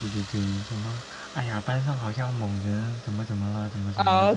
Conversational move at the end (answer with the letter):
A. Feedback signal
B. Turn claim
B